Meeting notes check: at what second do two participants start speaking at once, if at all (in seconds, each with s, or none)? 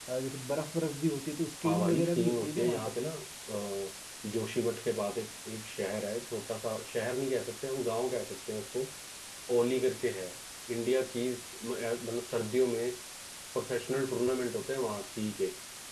1.6 s